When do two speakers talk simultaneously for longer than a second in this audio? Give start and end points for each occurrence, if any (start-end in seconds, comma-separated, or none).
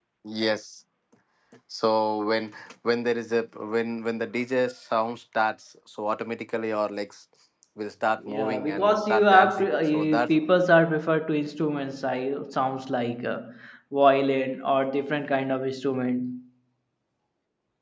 8.3-10.3